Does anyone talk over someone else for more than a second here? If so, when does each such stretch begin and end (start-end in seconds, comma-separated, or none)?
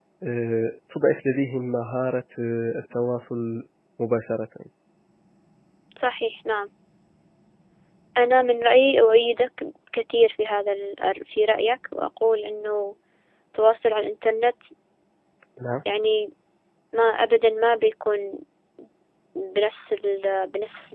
none